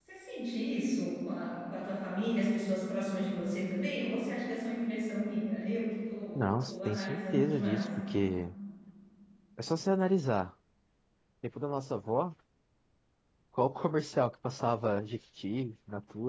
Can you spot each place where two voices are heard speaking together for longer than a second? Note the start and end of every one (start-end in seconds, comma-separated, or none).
6.4-7.9